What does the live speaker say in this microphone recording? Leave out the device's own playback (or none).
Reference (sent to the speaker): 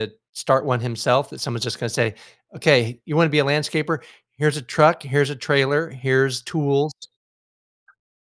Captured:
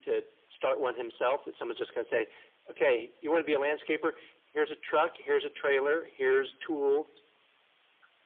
none